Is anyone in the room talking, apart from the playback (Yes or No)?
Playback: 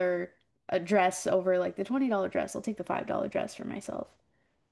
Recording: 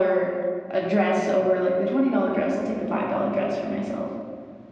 No